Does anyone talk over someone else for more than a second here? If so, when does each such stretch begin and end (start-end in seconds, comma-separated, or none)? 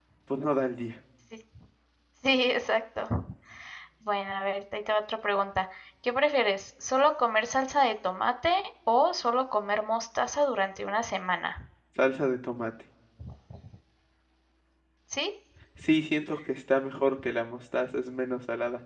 none